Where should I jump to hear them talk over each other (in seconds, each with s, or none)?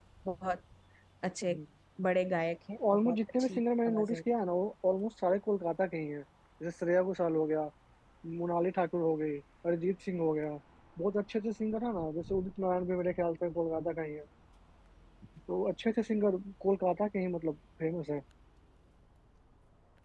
2.8 s